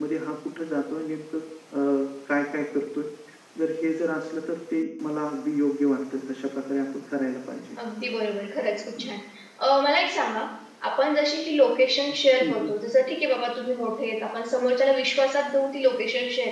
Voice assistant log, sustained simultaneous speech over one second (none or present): none